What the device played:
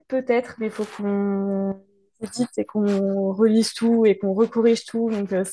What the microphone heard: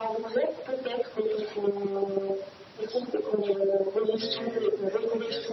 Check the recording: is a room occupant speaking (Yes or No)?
Yes